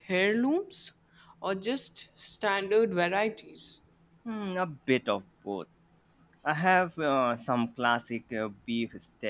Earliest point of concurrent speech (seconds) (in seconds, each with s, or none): none